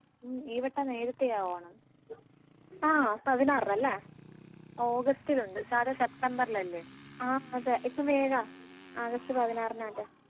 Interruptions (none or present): none